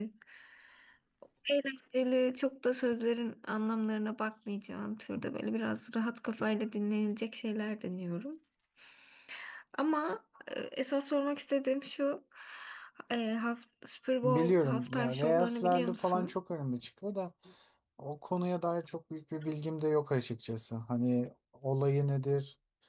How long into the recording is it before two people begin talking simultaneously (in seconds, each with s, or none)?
14.2 s